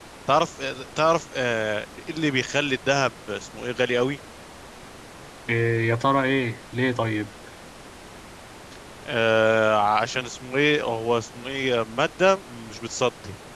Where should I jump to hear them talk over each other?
none

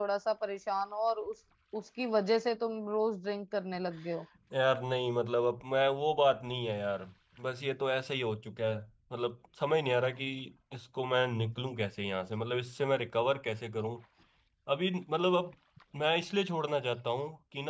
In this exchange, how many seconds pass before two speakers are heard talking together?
none

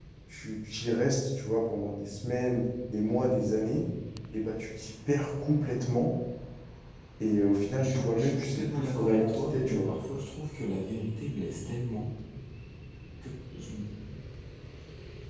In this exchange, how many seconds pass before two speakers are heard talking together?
8 s

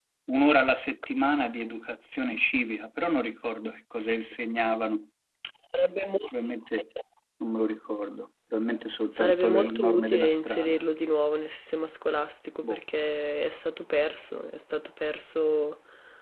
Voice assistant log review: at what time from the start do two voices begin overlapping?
9 s

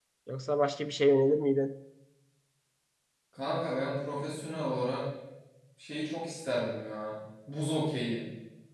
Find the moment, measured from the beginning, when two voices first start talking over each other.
none

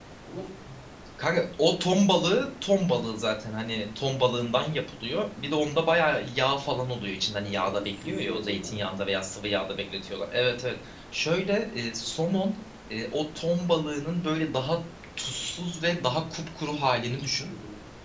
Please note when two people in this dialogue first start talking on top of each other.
7 s

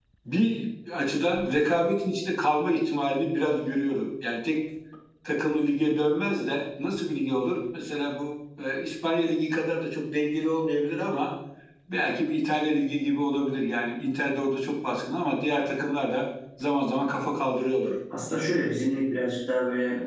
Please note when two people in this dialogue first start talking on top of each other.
none

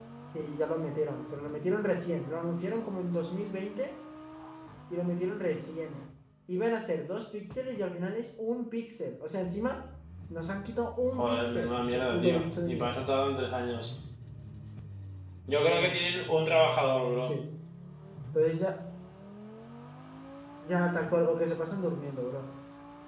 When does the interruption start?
11 s

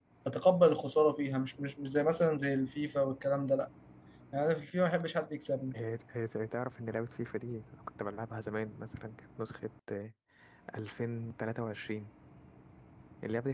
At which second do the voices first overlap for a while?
none

